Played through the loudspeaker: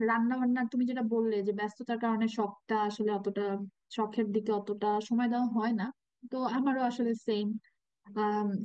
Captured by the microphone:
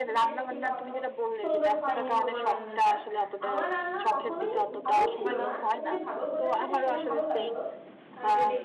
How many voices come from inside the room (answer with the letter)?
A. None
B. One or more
B